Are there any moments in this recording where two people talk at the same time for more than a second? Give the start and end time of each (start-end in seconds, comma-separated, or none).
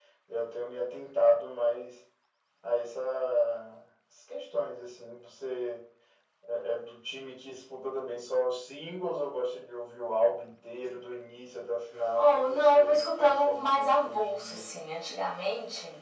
12.2-14.6